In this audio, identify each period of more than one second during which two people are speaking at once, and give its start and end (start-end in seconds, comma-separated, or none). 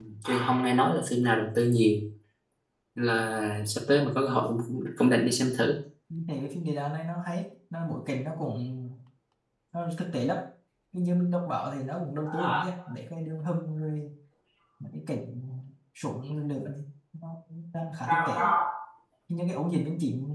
none